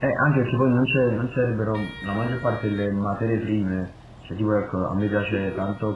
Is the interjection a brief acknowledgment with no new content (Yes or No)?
Yes